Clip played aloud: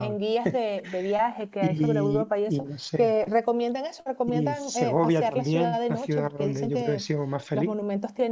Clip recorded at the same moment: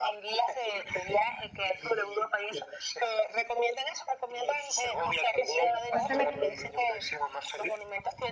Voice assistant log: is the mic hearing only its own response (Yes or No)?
No